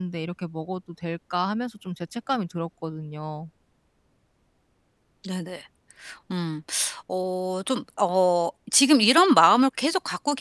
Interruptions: none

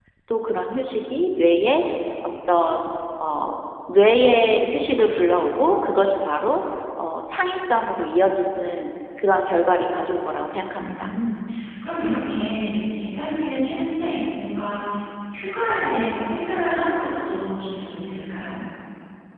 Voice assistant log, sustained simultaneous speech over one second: none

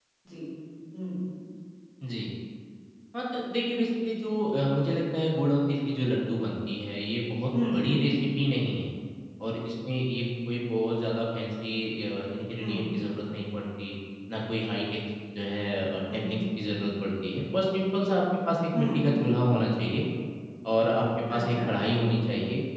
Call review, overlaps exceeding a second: none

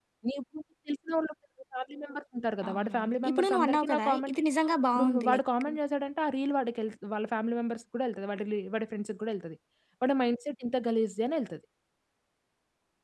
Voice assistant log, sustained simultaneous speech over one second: present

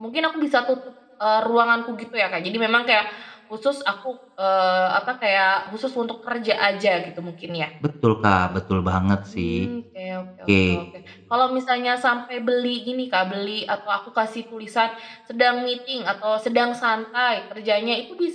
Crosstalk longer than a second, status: none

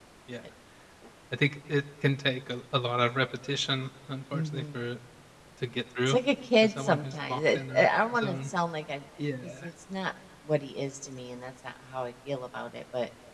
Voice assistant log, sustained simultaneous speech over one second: present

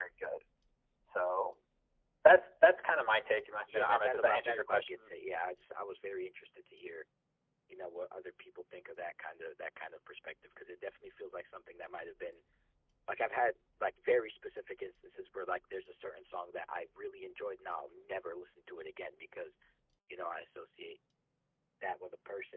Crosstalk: present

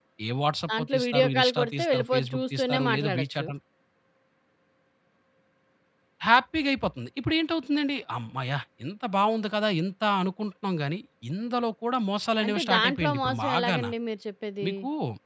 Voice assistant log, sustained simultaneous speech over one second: present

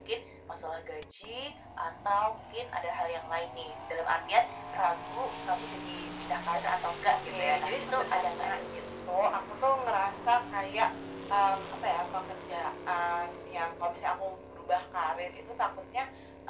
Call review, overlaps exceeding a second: present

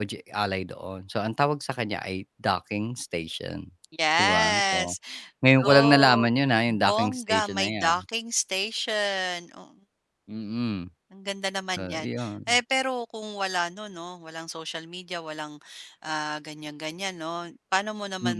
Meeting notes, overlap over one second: present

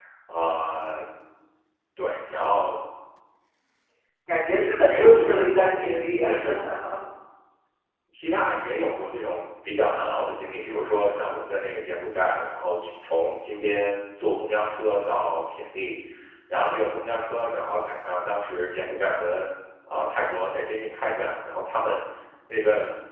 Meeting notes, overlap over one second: present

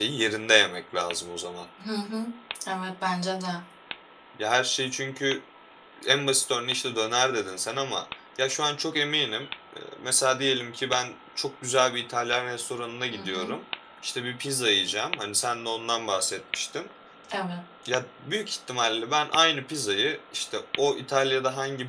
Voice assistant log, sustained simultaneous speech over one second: none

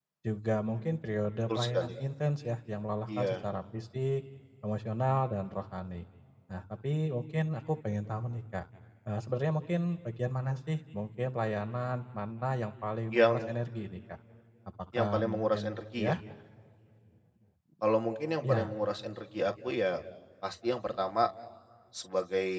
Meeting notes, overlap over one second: present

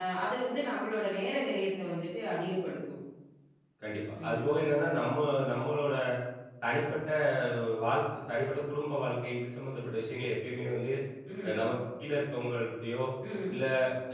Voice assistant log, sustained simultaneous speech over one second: none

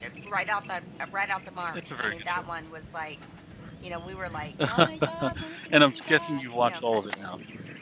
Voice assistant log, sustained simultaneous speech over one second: present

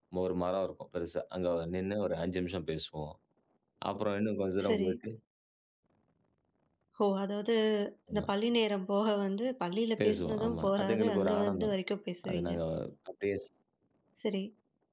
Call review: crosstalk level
present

